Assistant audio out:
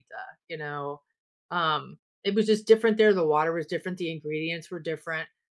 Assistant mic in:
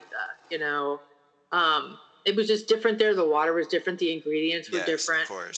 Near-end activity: present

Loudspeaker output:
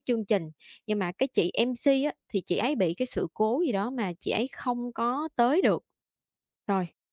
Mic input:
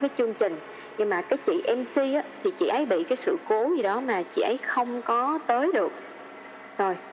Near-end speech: none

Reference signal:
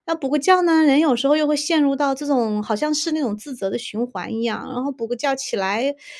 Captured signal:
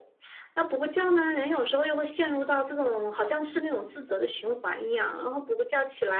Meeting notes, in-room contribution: none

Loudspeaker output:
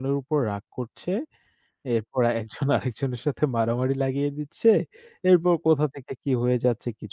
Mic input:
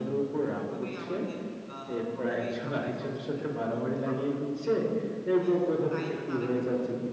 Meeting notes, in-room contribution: present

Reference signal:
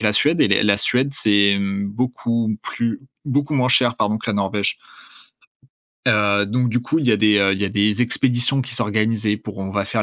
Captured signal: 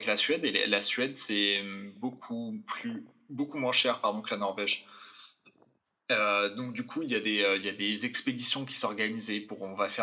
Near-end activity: none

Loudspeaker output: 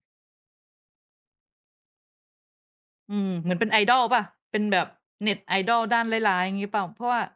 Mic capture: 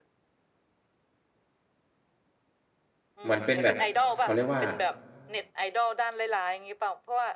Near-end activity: present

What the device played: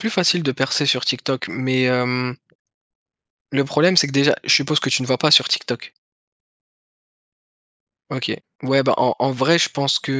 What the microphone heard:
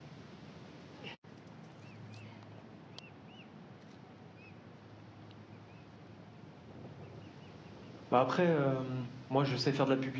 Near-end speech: present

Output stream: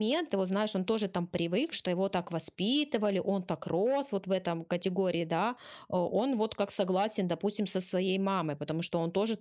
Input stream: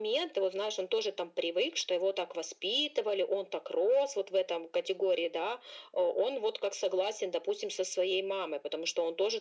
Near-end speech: none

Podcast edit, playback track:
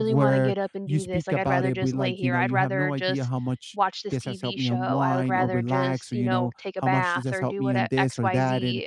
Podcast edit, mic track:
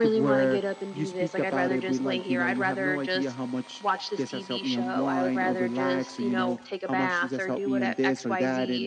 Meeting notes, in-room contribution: none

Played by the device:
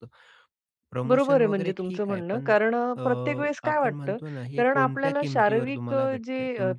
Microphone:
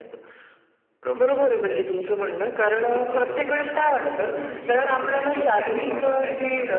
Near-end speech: present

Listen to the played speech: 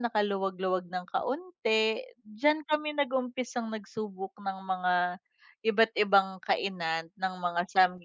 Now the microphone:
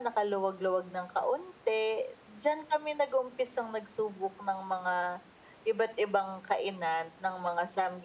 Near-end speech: none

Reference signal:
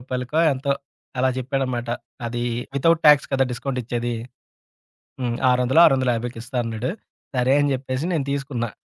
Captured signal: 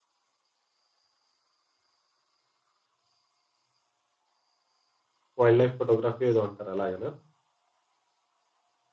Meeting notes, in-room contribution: present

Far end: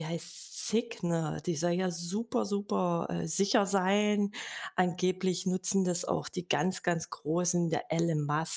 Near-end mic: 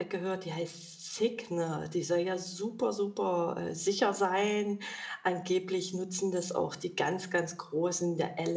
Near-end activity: none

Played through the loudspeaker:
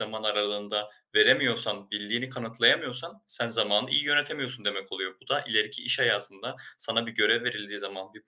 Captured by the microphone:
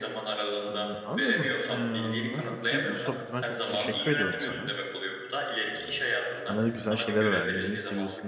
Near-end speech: present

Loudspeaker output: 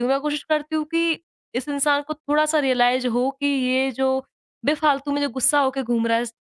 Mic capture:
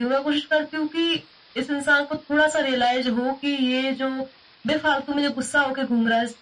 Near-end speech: none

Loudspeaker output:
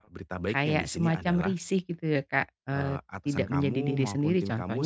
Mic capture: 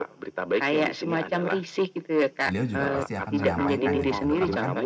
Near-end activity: present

